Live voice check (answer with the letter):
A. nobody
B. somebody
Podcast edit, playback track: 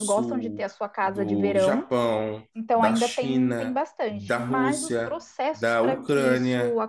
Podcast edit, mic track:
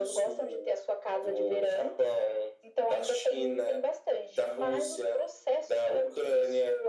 A